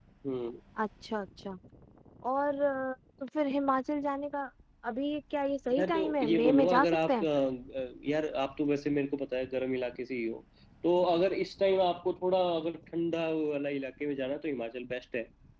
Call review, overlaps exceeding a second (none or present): present